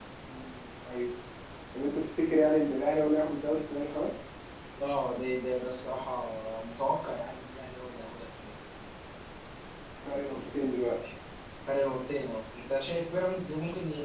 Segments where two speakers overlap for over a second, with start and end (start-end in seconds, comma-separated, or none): none